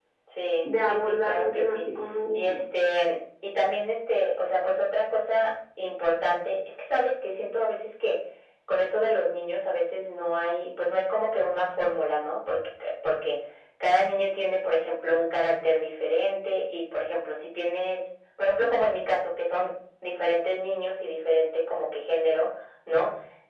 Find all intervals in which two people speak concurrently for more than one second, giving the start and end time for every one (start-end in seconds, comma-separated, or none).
0.6-1.8